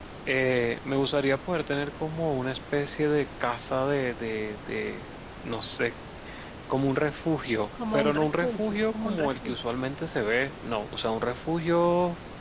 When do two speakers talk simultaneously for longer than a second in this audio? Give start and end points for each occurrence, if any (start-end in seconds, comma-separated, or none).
7.9-9.6